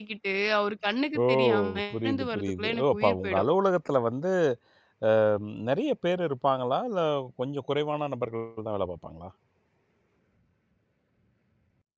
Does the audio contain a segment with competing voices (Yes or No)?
Yes